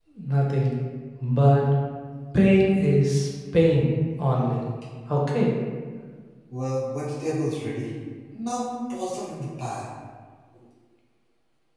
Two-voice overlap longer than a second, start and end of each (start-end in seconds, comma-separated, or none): none